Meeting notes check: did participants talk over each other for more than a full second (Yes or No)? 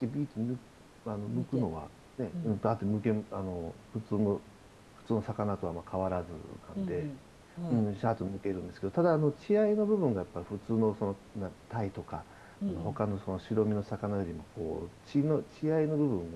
No